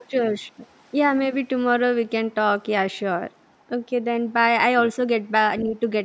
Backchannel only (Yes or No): Yes